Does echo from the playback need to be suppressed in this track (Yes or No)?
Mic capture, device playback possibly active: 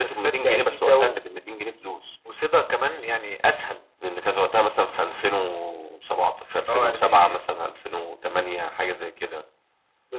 Yes